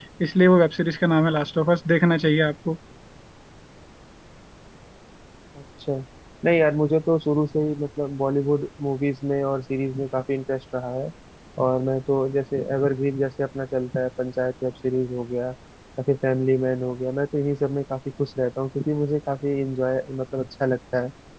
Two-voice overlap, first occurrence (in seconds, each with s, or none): none